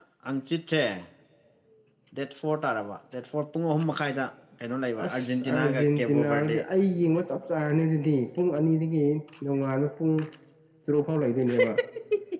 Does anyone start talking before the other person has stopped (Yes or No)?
Yes